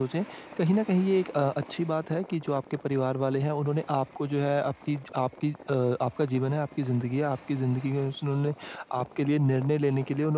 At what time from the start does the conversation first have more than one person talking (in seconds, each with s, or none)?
none